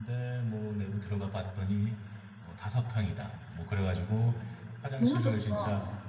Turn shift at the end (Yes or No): No